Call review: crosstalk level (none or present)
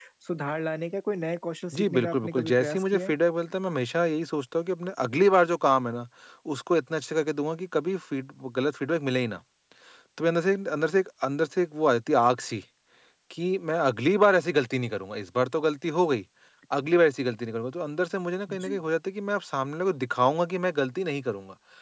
present